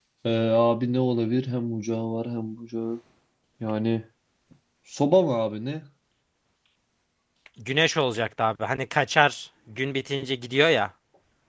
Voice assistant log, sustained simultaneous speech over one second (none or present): none